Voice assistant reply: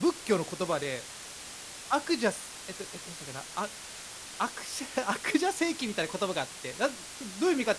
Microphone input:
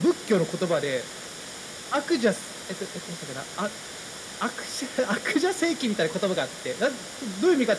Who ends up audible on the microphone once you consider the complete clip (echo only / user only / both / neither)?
echo only